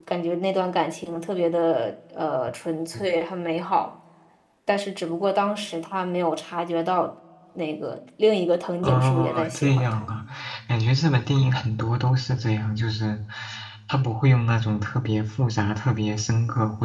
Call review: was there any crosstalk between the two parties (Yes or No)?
Yes